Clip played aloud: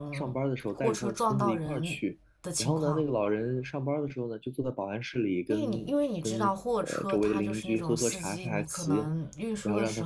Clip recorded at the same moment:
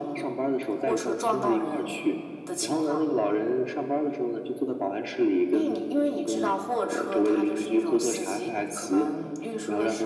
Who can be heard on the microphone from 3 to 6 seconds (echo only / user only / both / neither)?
echo only